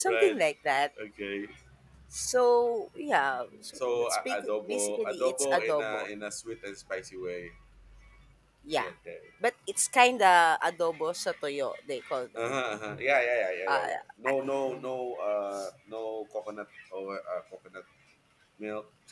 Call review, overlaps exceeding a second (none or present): present